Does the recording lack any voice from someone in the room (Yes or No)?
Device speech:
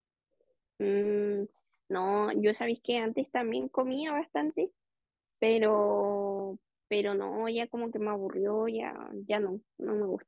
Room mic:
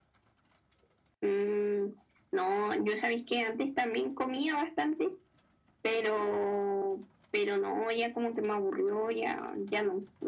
Yes